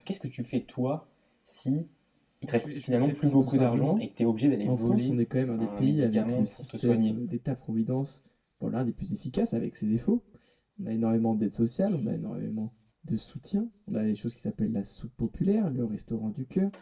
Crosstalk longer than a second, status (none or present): present